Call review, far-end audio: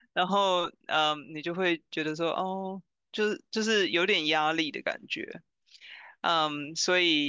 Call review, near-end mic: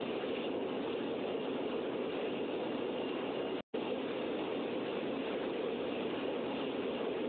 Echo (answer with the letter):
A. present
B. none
B